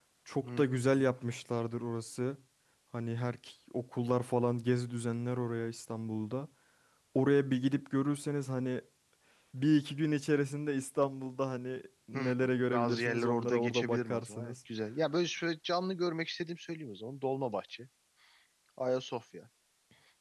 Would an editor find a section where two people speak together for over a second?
Yes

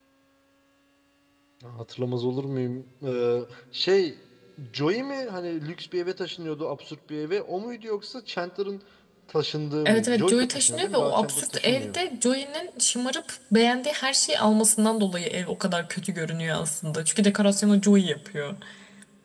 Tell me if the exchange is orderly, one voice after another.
No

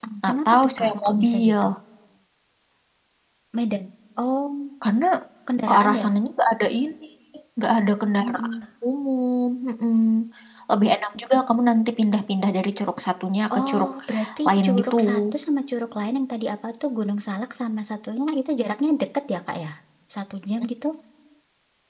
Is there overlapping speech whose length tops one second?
Yes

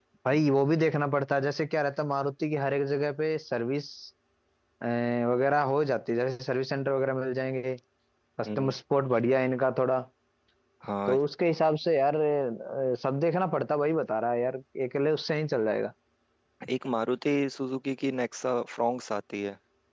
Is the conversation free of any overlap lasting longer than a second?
Yes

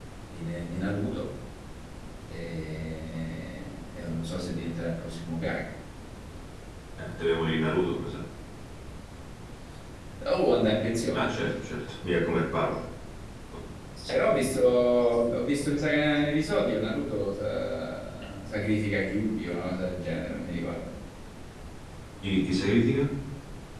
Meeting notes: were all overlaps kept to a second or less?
Yes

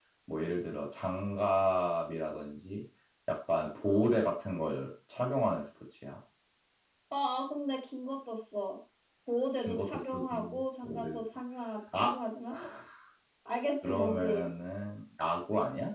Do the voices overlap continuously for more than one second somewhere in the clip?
Yes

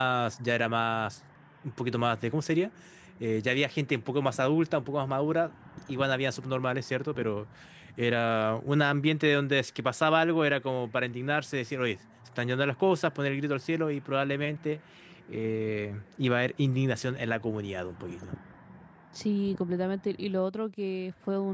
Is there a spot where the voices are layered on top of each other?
No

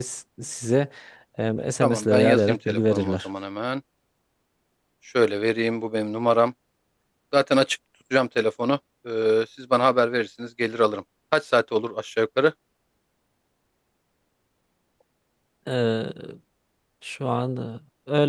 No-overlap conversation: No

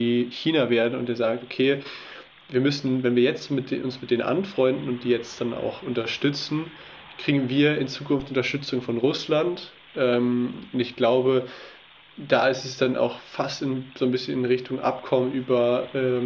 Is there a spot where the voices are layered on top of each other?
No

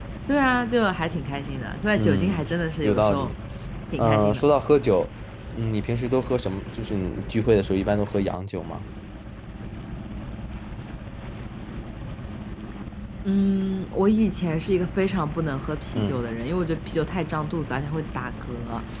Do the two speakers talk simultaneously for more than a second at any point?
Yes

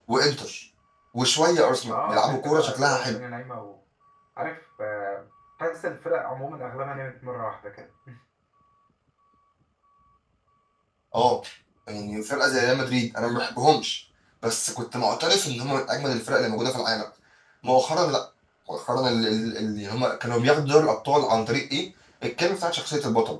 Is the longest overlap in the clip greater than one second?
Yes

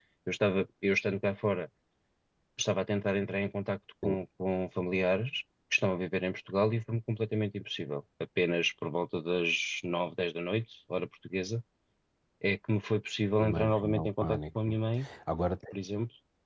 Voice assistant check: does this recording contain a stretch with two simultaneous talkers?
Yes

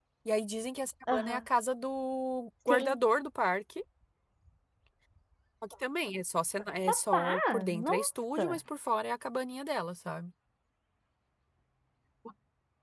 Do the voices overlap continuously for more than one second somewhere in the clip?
Yes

